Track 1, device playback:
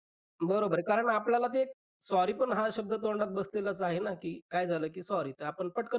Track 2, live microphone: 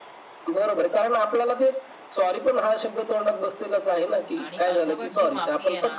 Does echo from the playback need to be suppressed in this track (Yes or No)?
Yes